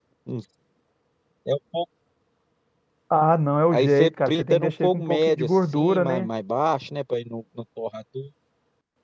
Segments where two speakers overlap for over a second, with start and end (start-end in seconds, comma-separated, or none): 3.7-6.3